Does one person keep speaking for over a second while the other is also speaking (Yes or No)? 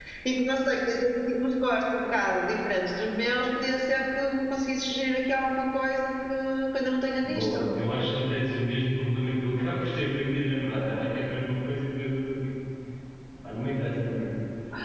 No